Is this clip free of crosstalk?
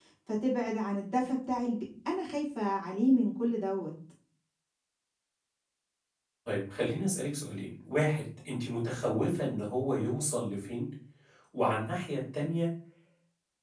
Yes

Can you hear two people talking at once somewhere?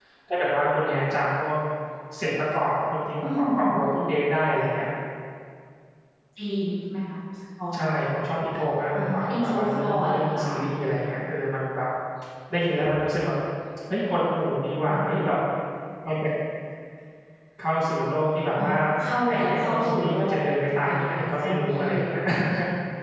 Yes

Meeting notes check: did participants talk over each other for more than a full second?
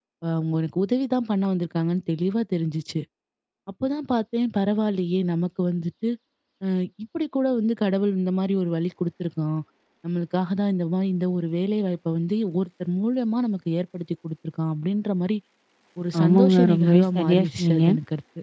Yes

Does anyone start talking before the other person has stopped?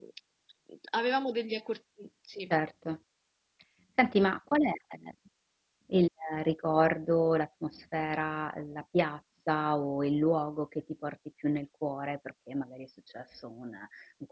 No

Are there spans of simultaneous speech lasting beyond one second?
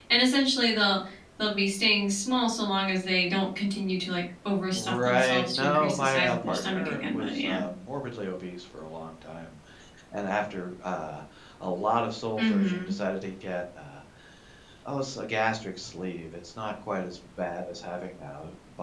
Yes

